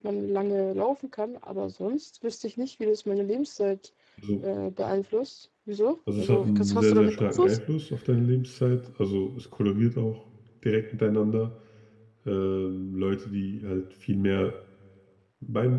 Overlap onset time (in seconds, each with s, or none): 6.1 s